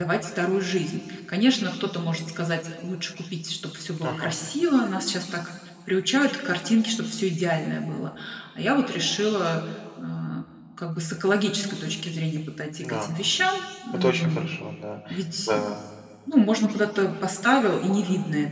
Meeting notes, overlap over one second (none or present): none